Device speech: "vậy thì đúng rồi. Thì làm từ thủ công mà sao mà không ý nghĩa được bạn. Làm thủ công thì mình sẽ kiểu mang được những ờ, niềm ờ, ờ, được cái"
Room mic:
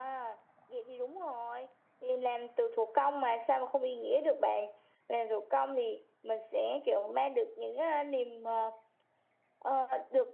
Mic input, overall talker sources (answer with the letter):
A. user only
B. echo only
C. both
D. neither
B